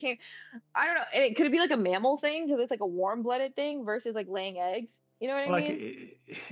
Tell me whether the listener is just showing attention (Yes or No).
No